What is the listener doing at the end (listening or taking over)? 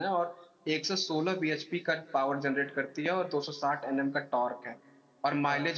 listening